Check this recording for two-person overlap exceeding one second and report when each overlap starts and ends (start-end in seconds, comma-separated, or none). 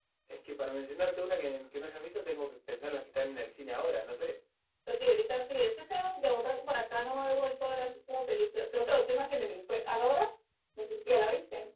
none